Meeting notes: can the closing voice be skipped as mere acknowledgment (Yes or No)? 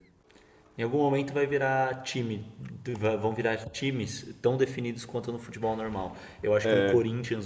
Yes